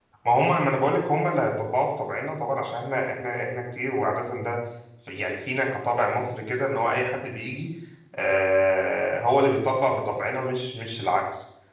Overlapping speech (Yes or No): No